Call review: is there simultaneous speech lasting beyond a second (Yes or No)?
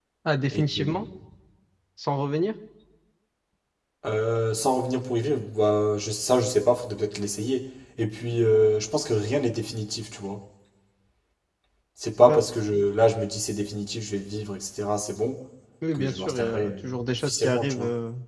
Yes